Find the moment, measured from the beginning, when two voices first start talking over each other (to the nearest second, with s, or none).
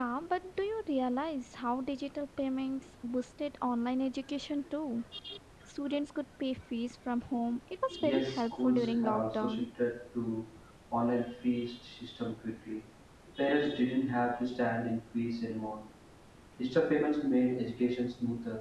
8 s